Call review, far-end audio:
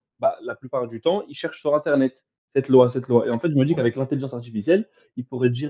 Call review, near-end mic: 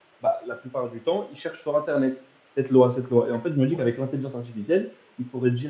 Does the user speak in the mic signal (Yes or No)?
No